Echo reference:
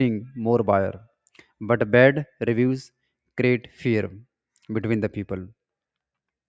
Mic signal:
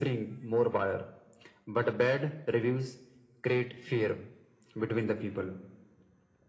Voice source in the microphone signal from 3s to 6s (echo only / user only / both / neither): echo only